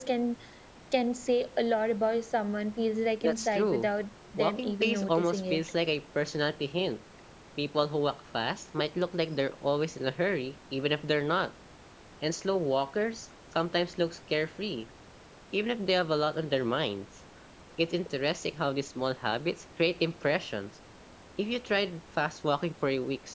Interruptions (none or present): present